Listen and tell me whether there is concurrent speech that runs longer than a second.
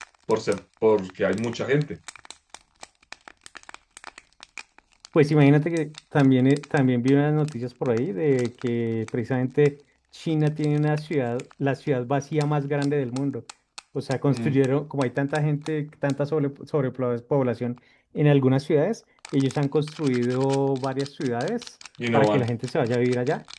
No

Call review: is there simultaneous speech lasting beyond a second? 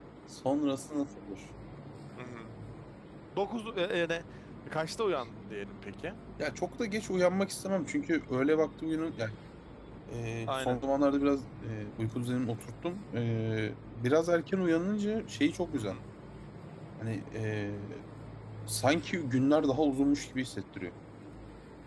No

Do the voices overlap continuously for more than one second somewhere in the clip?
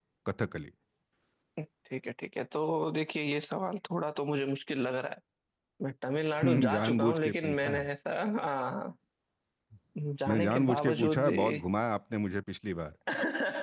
Yes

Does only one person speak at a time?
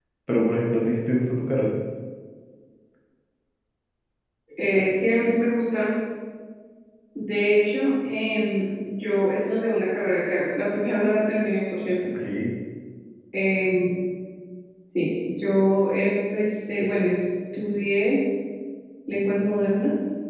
Yes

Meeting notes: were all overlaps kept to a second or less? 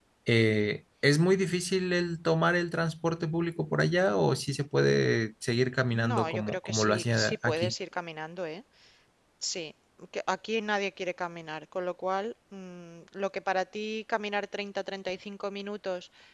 No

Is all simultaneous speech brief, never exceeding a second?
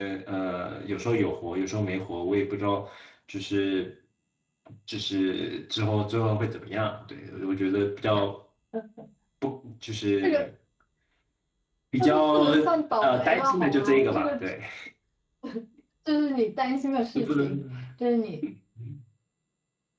No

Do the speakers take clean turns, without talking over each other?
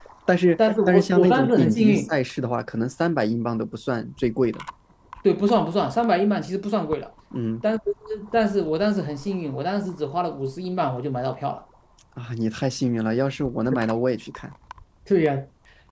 No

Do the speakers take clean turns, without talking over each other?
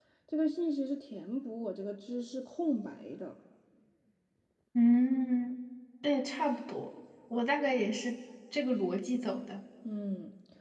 Yes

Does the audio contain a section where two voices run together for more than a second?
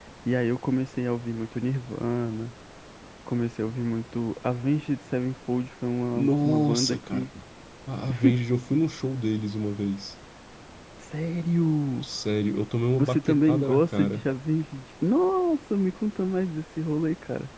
Yes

